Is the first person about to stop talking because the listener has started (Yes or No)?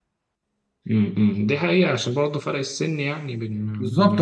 Yes